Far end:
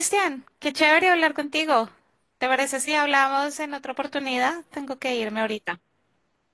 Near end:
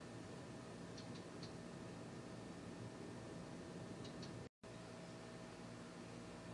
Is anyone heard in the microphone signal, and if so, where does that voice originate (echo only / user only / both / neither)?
neither